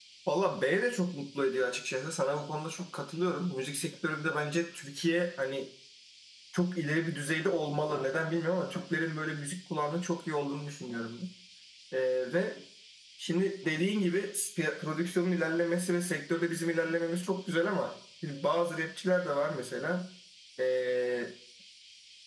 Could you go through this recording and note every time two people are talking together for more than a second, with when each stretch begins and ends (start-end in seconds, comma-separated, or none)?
none